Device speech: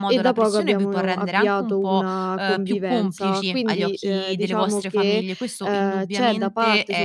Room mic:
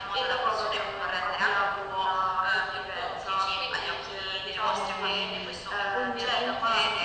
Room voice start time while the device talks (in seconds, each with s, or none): 4.5 s